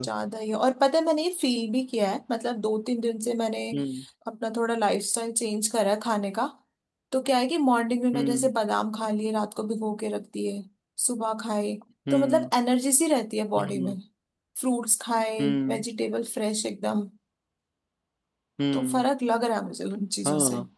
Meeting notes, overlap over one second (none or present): none